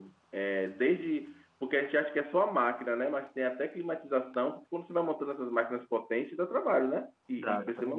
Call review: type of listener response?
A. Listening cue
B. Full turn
B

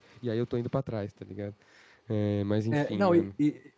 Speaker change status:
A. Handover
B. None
A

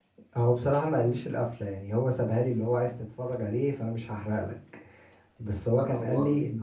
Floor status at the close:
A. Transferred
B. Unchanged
B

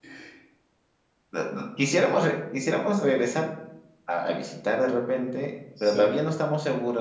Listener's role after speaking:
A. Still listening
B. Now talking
A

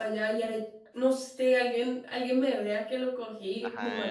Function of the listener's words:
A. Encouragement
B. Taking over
B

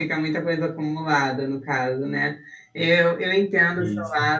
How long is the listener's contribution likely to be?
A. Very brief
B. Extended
A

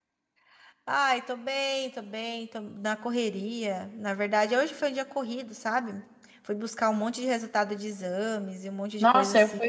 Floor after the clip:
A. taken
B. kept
A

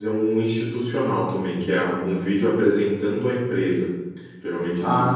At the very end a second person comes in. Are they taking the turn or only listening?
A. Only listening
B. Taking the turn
A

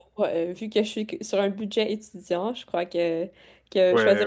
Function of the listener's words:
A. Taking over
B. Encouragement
B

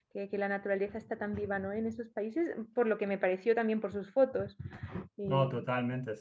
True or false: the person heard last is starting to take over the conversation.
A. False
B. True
B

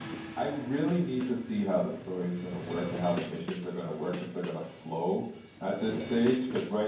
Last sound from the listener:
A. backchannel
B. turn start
A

